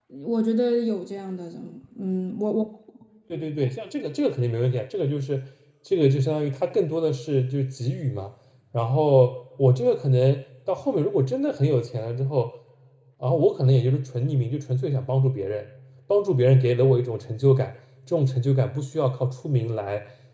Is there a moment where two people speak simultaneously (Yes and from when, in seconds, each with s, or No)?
No